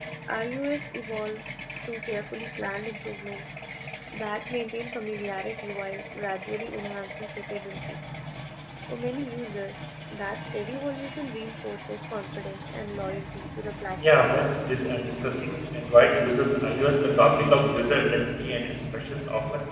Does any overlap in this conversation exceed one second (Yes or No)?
No